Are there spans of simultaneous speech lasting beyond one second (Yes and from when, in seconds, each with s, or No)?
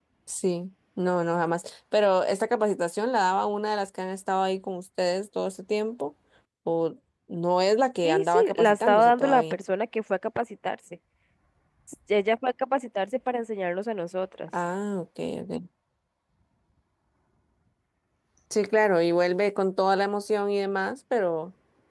Yes, from 8.0 s